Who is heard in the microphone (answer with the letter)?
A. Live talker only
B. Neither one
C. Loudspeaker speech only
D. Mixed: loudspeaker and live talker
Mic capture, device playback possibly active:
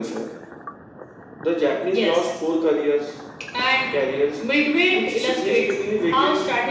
C